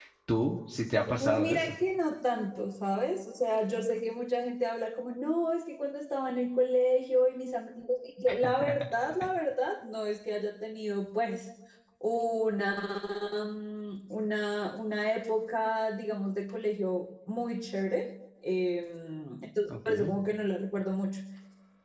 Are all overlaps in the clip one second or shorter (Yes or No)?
Yes